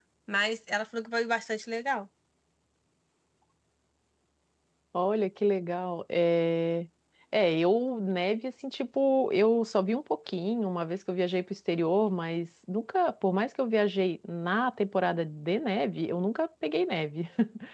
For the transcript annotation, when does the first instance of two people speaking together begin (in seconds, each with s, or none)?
none